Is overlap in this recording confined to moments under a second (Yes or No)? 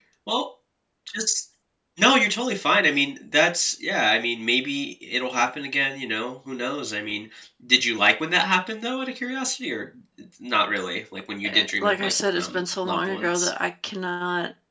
No